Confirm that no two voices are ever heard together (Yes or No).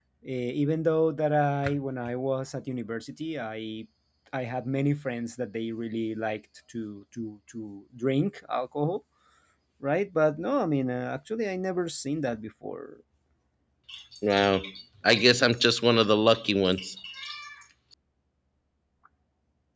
Yes